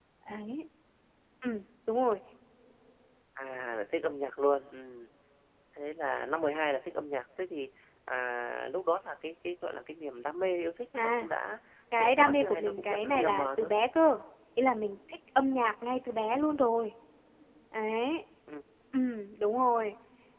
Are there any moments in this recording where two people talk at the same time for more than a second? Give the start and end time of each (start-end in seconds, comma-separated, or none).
12.0-13.7